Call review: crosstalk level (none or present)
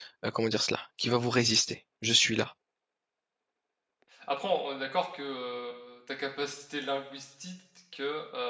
none